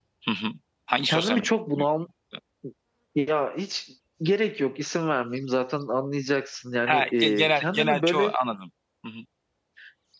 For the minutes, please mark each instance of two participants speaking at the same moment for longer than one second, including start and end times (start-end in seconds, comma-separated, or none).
6.9-8.3